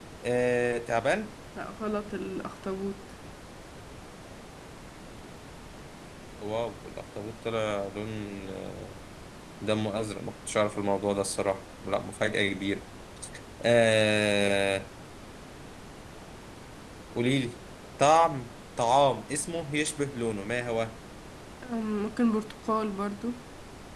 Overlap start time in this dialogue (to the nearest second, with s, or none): none